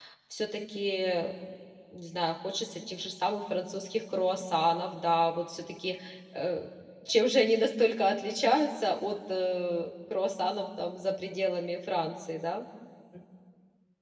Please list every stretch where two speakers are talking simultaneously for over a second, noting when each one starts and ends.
none

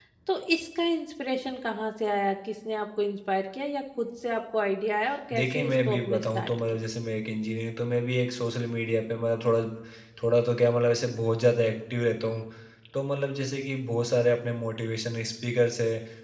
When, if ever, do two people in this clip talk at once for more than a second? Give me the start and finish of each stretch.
5.3-6.8

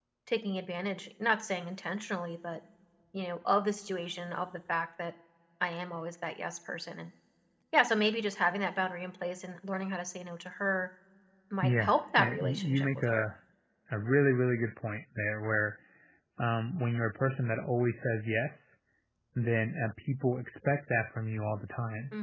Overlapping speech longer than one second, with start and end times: 11.6-13.3

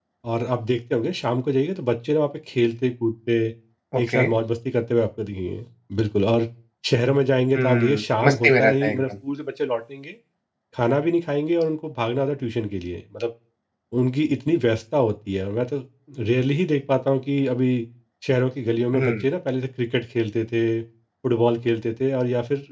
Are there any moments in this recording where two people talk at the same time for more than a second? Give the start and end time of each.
7.6-9.0

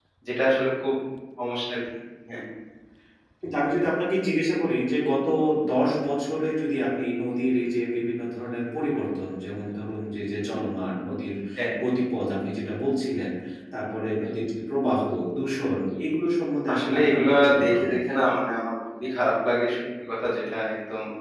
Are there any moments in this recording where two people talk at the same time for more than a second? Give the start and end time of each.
16.7-18.0

